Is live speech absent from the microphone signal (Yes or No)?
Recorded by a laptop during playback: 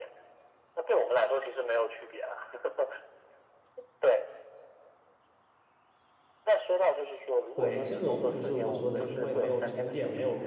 No